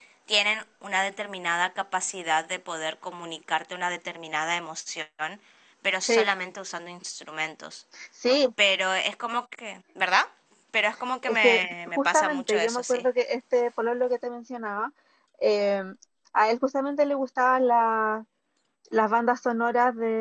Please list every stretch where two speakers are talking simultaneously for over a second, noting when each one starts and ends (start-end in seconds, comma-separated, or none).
11.2-13.0